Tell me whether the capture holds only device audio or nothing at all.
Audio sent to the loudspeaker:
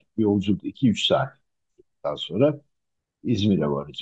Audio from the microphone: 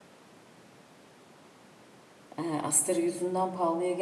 No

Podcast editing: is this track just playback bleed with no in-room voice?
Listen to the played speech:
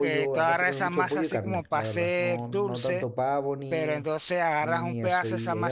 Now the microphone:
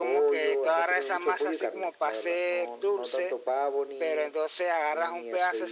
Yes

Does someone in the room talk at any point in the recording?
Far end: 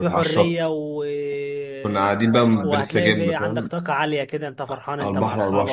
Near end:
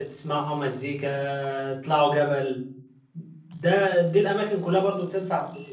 Yes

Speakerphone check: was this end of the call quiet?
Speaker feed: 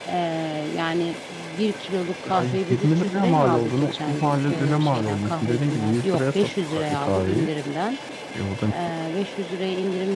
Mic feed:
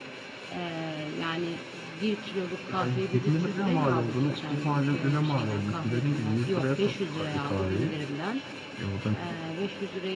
Yes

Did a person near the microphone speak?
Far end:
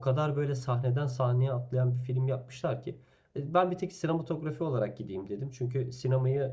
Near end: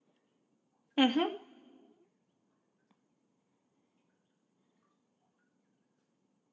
Yes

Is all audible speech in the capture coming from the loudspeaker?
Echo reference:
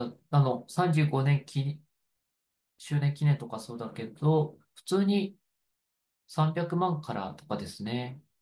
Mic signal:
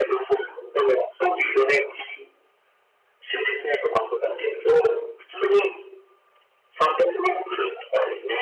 Yes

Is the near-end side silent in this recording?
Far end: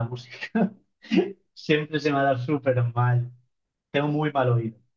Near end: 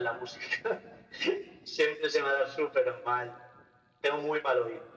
Yes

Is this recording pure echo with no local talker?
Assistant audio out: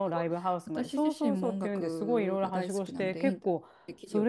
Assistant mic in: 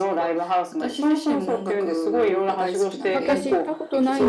No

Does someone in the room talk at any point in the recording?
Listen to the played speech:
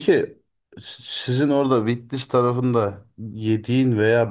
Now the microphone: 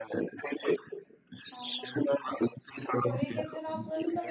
Yes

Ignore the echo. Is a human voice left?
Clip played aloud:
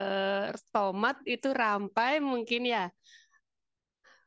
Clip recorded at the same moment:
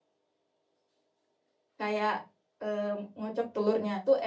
Yes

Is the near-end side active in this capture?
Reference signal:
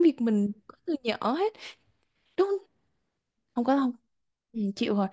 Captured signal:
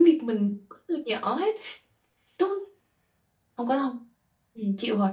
No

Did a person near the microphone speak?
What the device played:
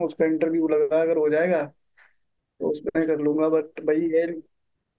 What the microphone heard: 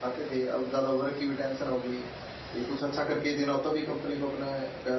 Yes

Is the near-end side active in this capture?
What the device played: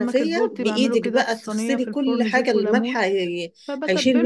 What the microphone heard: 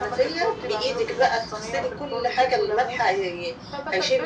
No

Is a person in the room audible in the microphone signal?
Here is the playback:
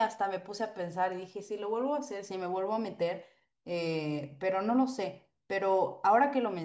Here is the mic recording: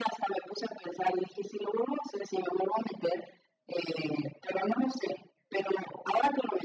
No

